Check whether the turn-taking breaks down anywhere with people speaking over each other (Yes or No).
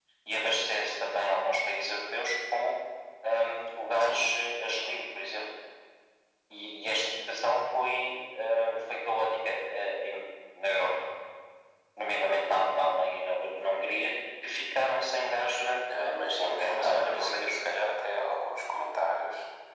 Yes